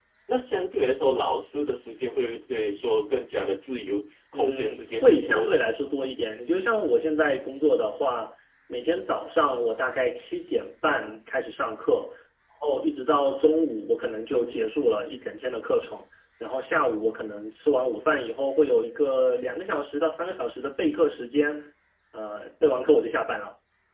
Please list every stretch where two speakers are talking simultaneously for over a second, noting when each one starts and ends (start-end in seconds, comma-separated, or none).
4.3-5.6